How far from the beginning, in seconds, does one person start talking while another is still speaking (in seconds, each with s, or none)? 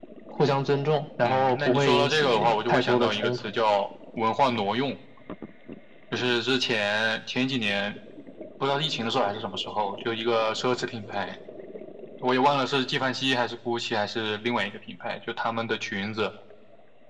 1.2 s